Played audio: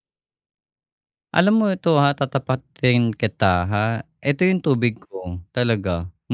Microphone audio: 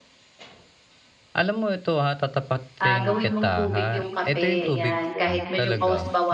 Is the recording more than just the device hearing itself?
Yes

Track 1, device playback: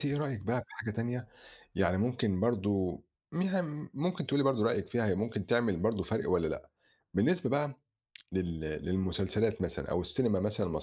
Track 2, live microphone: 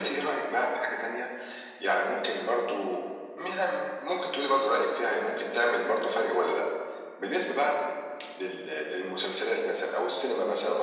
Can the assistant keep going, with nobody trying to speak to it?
Yes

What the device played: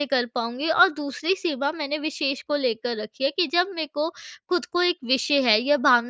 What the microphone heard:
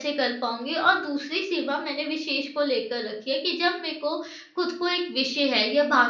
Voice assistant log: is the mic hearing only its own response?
Yes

